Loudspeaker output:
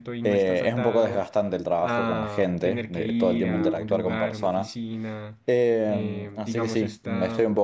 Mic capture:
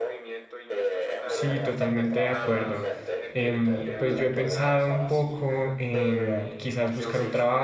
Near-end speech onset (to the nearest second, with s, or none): 1 s